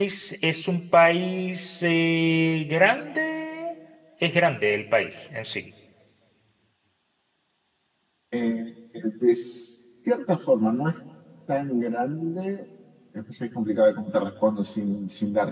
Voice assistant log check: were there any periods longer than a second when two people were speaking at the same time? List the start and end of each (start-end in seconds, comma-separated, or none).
none